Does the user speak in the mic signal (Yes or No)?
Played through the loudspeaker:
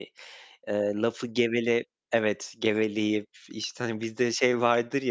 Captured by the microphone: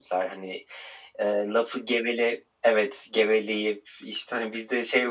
No